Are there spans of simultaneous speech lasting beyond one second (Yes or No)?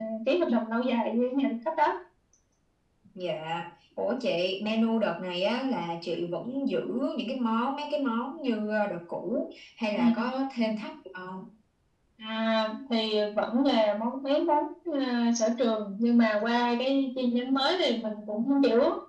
No